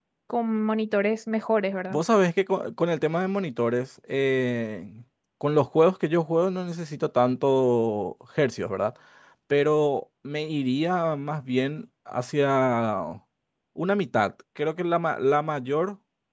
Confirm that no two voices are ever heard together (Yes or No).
Yes